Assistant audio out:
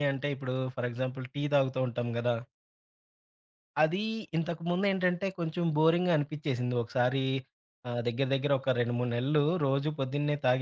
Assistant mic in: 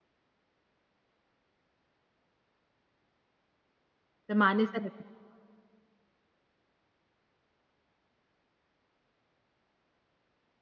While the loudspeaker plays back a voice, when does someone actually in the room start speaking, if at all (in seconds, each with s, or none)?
4.2 s